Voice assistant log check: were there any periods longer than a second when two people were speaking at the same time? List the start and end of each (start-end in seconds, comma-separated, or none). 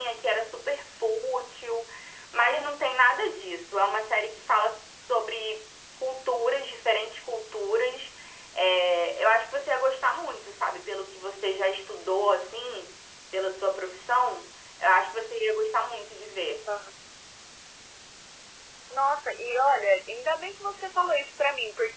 none